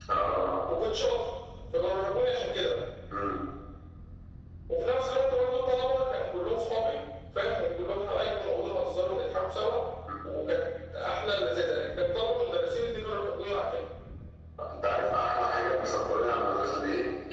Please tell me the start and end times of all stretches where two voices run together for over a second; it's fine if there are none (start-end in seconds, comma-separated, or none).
none